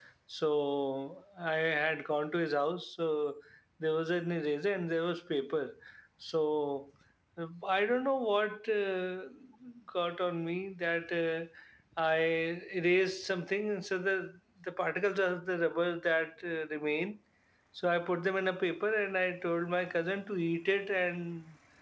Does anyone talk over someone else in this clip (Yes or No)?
No